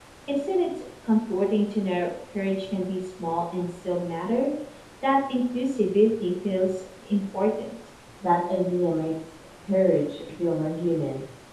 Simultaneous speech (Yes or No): No